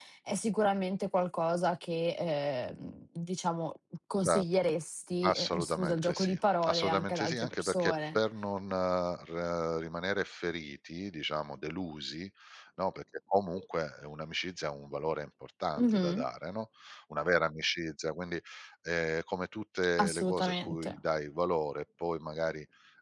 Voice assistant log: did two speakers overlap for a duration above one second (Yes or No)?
Yes